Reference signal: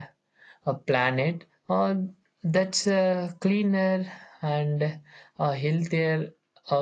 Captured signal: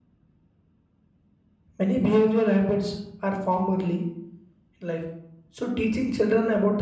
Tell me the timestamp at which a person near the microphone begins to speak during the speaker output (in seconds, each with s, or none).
1.8 s